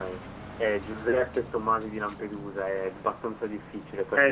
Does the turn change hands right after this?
Yes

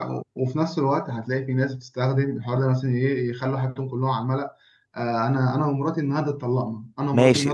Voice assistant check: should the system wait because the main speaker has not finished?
No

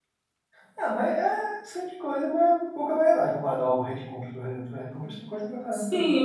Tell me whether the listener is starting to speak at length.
Yes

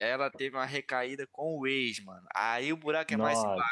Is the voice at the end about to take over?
No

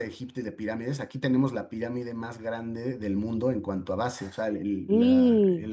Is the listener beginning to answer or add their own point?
No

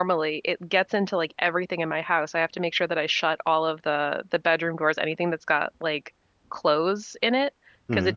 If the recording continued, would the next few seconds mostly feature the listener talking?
No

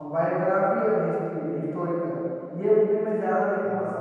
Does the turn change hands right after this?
No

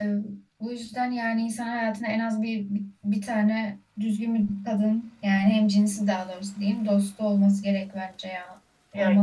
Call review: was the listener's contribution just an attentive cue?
No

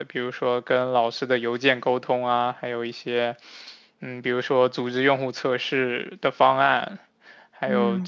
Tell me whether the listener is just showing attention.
Yes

